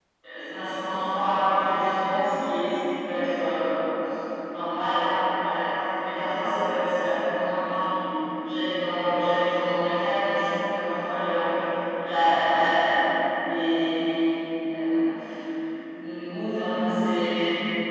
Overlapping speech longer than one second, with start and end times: none

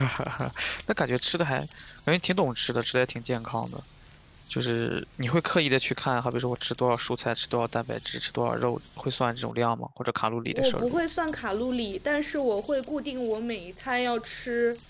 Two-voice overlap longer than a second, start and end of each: none

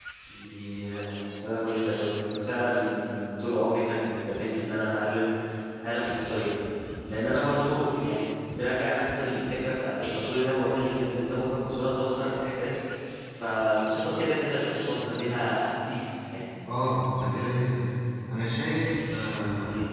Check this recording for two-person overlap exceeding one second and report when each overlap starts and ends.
none

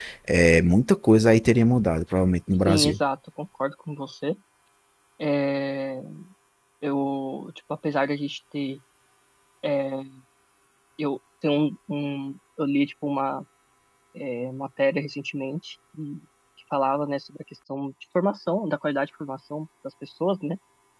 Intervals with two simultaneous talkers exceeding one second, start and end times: none

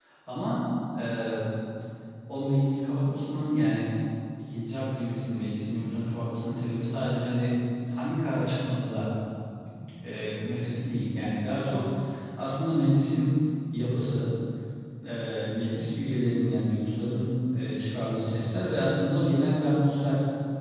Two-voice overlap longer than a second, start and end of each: none

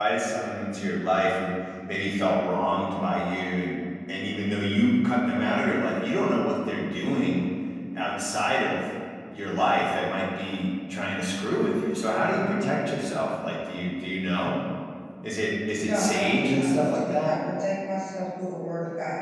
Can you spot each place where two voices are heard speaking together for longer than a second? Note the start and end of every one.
15.8-17.4

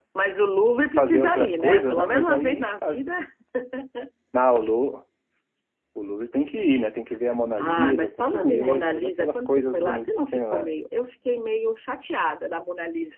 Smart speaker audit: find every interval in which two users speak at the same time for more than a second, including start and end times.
1.0-3.0, 7.6-10.7

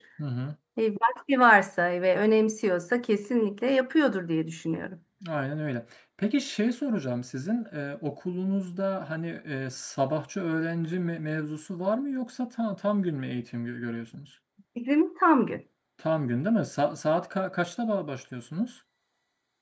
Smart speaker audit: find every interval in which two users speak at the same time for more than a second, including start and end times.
none

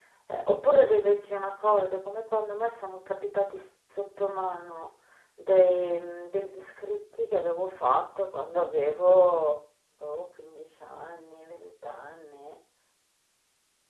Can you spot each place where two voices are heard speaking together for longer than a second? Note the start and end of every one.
none

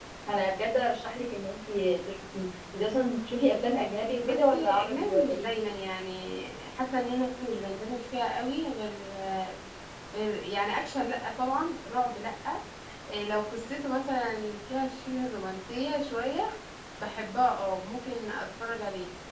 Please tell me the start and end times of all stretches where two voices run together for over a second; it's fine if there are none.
4.2-5.5

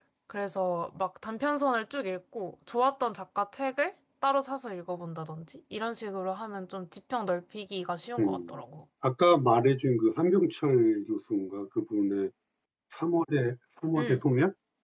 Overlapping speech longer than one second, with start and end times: none

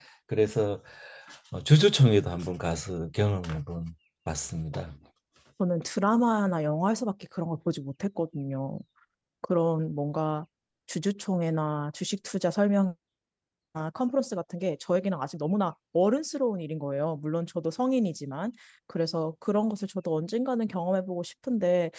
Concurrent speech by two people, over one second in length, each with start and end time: none

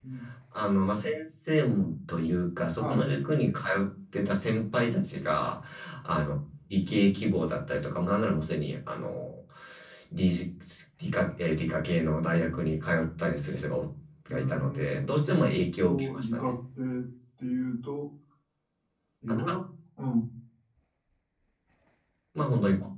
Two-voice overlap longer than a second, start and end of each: 14.3-16.5

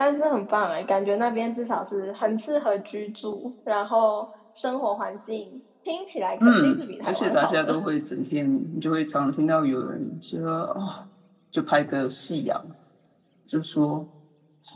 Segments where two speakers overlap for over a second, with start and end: 6.4-7.8

